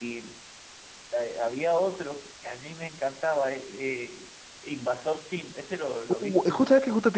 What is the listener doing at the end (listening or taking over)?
taking over